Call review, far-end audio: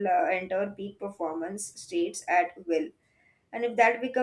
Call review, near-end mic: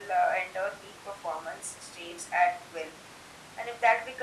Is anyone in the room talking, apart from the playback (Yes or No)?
No